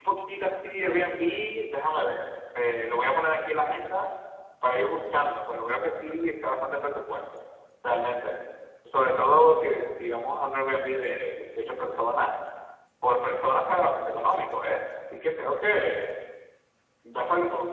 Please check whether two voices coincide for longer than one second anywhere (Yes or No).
No